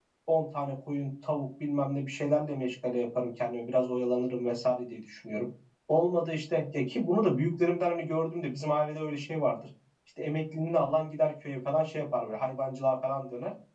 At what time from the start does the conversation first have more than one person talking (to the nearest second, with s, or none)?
none